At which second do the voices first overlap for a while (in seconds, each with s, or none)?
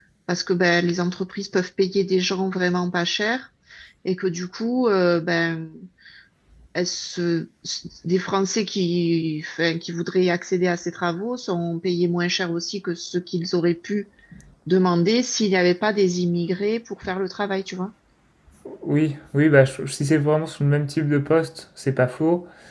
none